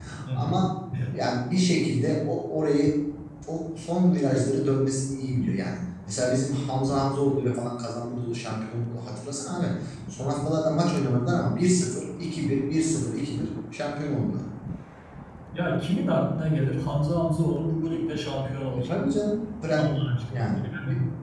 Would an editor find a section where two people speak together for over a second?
No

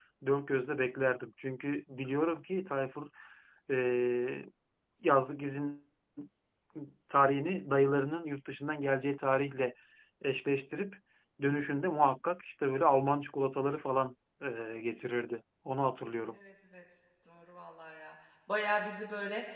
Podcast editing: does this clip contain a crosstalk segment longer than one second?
No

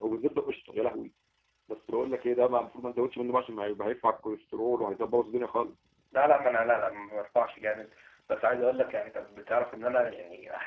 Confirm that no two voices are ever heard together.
Yes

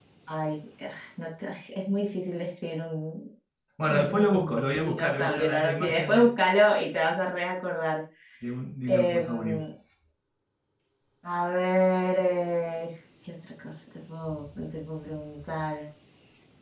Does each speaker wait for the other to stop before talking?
No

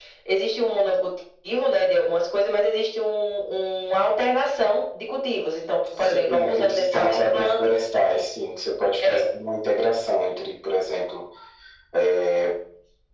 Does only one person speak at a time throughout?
No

